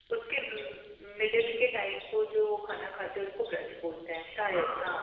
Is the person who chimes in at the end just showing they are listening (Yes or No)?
No